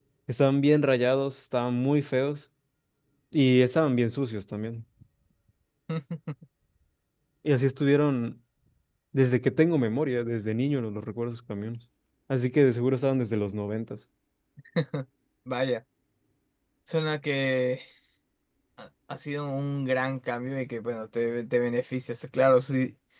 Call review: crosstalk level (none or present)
none